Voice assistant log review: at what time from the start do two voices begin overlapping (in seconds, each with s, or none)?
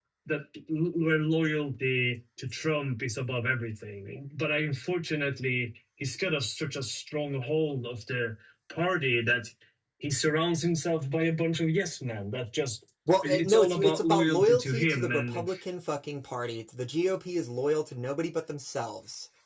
13.4 s